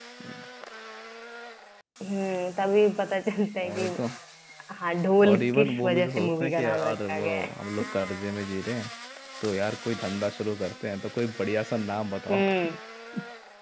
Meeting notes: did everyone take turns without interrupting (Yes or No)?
No